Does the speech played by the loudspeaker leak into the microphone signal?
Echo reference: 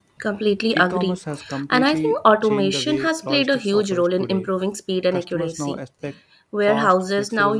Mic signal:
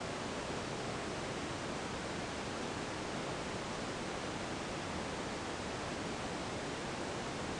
No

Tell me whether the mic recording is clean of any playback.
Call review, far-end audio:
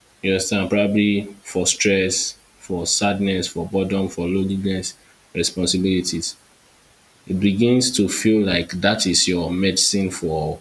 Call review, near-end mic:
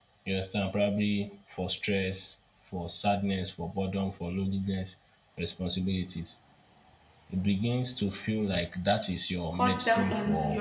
No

